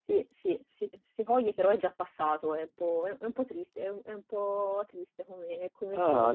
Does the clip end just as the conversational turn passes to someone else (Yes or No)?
Yes